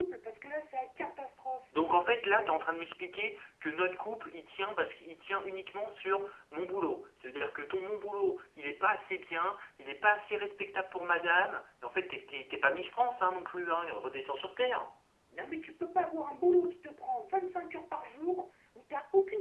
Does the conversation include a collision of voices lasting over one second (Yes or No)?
No